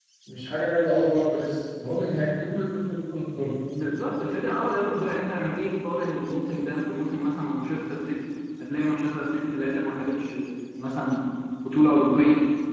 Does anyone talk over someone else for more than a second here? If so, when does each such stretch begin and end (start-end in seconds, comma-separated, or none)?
none